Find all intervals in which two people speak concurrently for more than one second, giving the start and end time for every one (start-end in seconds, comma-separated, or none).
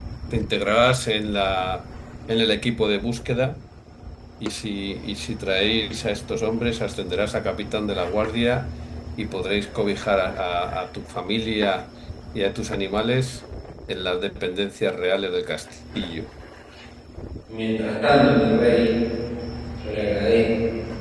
none